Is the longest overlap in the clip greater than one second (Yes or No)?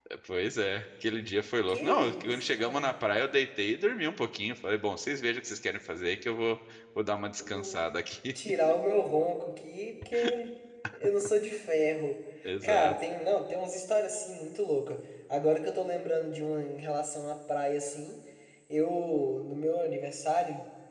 Yes